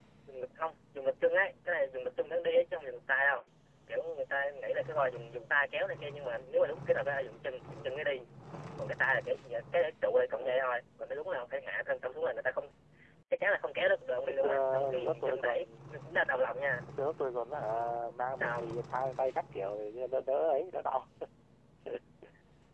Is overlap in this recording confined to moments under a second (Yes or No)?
No